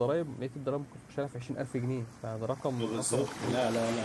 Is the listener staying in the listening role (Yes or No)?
No